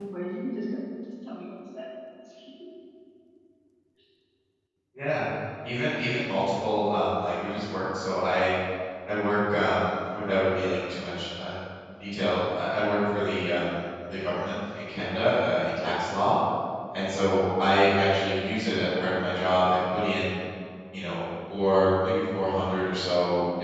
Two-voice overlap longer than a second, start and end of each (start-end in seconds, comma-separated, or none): none